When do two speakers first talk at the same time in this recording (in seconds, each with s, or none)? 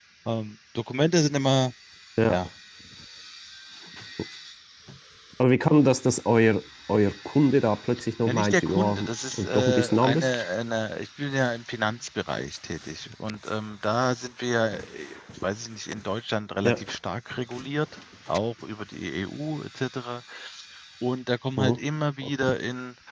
8.3 s